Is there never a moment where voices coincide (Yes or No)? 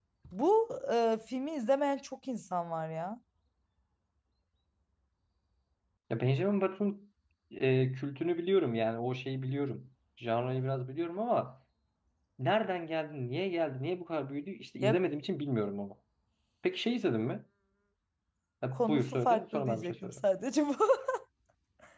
No